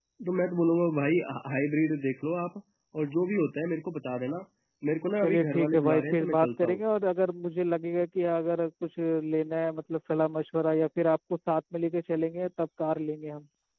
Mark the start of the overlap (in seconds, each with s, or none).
5.2 s